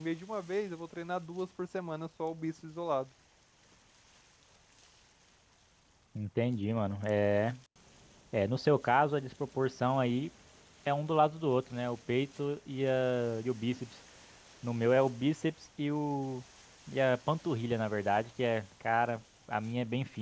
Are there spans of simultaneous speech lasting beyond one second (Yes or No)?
No